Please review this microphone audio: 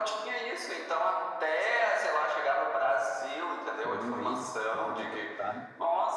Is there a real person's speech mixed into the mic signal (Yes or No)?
Yes